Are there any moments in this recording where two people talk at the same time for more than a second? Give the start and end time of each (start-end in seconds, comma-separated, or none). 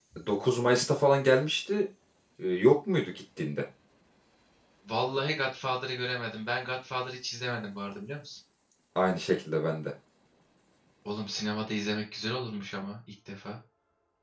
none